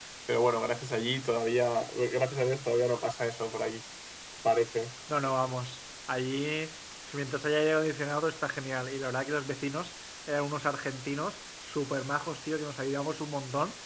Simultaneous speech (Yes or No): No